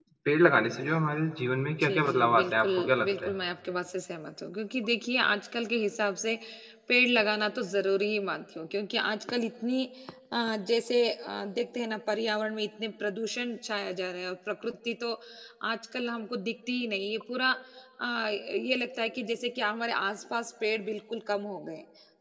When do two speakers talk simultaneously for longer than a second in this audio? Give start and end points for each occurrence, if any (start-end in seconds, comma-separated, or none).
1.8-3.3